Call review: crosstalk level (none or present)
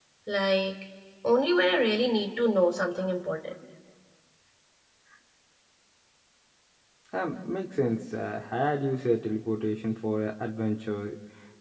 none